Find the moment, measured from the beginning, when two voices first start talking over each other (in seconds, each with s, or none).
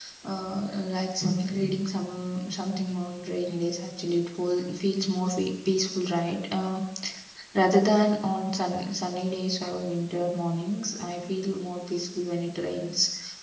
none